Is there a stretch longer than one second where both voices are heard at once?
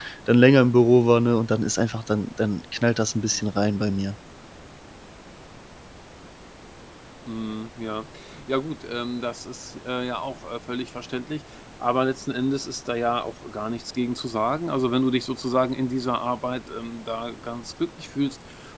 No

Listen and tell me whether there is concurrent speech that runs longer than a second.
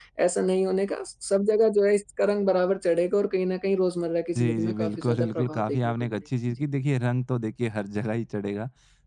Yes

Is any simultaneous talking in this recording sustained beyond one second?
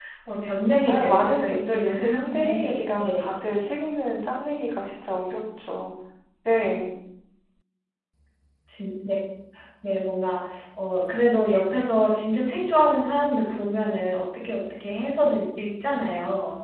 Yes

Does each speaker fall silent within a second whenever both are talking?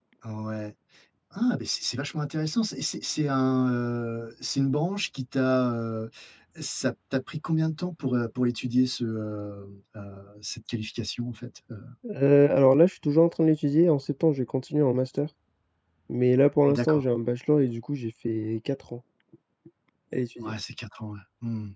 Yes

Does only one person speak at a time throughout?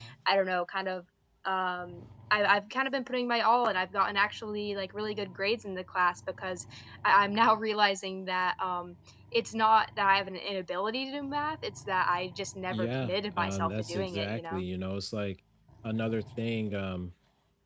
No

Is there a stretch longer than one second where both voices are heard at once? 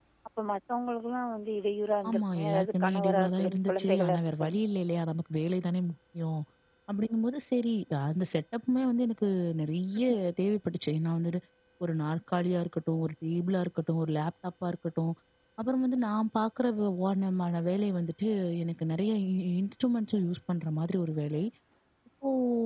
Yes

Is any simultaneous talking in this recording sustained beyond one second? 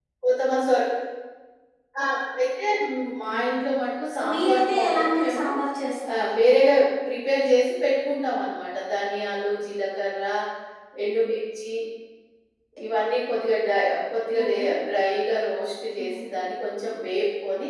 Yes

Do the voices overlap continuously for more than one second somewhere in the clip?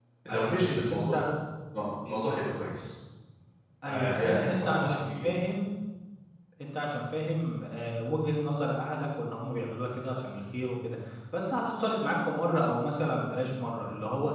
Yes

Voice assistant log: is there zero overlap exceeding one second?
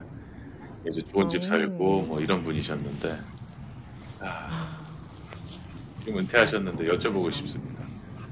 No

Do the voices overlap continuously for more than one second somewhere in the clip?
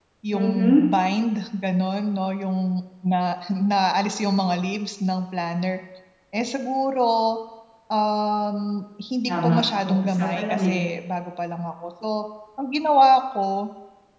Yes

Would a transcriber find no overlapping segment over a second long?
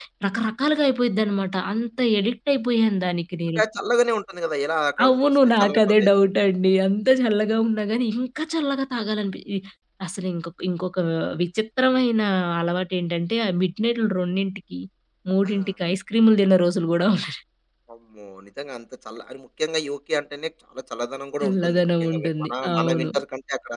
No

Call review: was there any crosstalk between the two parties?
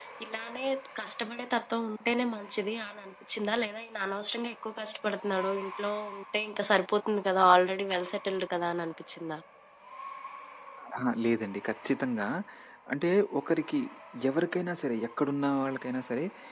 No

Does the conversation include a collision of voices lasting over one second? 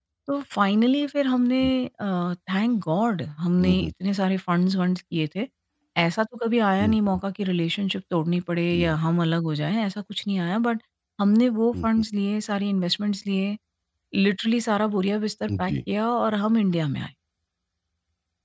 No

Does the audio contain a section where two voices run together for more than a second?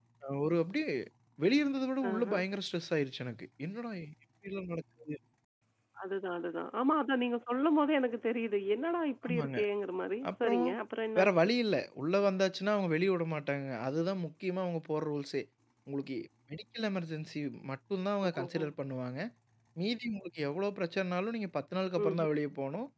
No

